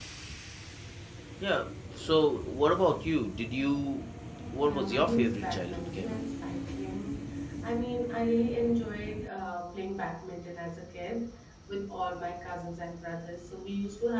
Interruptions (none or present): present